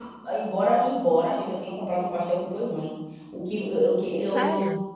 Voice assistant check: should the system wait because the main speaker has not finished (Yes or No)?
Yes